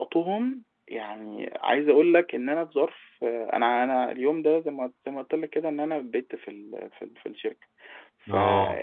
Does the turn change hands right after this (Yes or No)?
No